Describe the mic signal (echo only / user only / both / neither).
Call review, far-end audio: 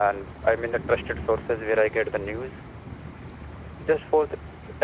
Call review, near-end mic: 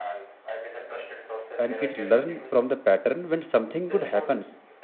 both